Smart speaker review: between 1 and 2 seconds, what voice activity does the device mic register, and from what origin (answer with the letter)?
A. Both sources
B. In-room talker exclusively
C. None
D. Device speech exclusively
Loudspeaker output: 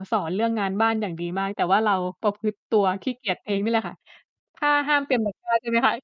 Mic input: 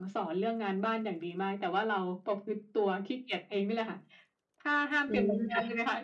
D